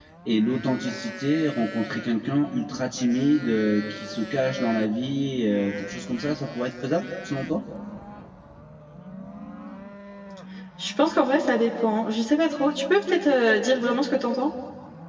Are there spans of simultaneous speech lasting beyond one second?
No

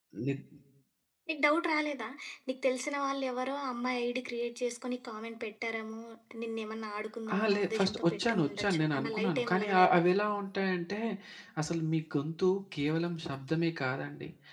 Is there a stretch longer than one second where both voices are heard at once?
Yes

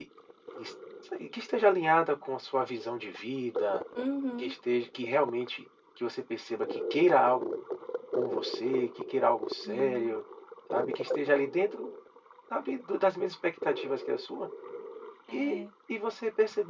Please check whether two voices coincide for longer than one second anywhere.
No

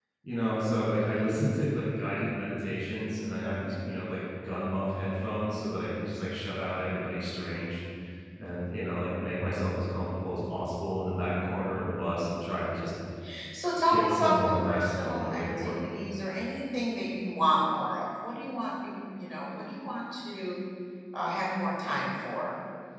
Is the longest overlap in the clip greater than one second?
Yes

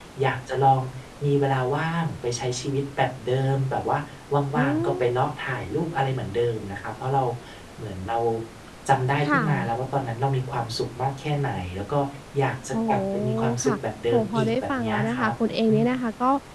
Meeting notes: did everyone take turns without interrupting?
No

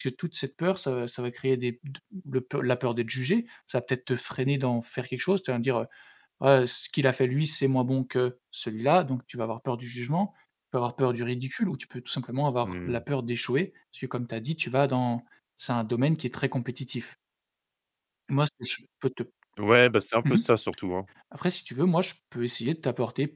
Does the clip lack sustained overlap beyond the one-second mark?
Yes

